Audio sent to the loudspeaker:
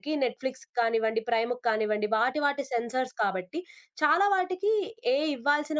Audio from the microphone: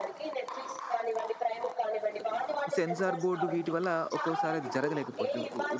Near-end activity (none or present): present